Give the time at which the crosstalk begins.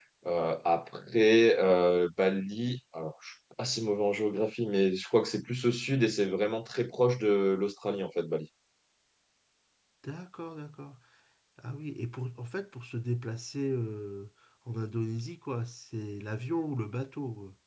none

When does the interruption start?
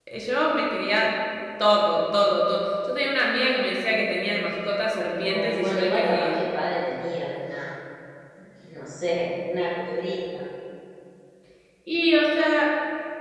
5 s

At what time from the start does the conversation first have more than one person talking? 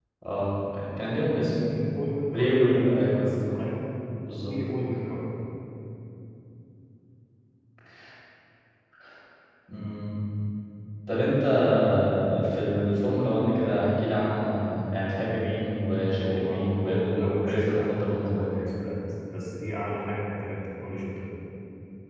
2 s

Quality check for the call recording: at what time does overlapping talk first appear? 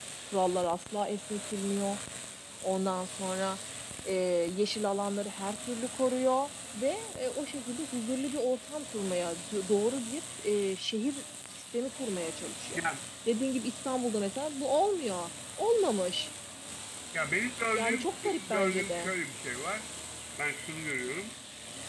18 s

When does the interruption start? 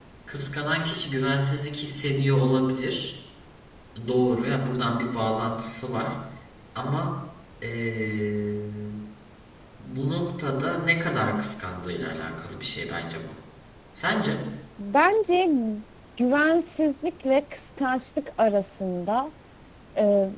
none

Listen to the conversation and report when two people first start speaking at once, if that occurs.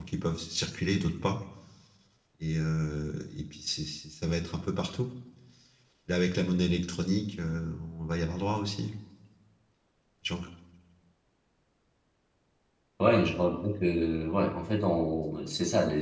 none

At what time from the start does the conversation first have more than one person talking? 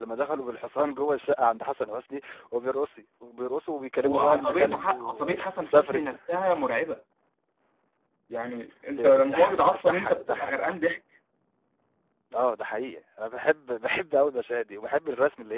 4 s

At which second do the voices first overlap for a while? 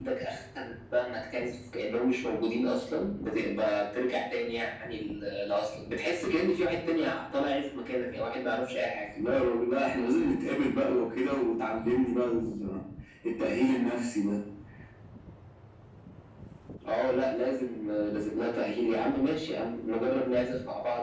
none

